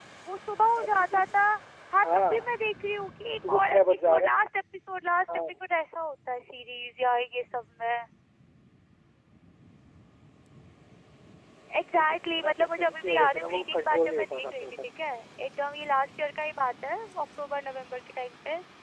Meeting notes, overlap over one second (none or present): present